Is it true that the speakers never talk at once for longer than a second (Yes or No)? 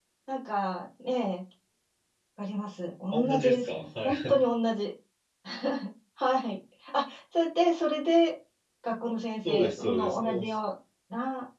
No